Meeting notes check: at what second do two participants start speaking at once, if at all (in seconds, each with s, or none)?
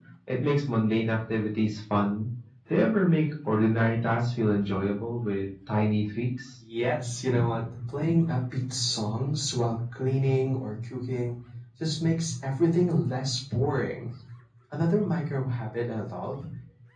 none